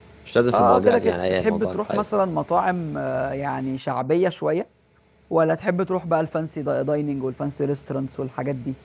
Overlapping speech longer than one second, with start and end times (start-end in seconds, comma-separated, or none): 0.5-2.1